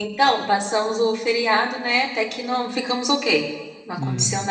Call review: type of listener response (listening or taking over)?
listening